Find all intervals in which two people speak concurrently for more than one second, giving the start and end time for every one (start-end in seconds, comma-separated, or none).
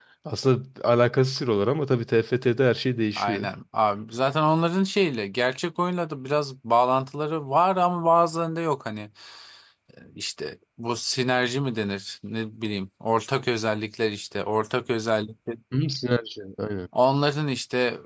none